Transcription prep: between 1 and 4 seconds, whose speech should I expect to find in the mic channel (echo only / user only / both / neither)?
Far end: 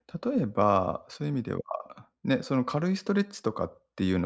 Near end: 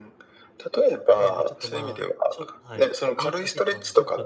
both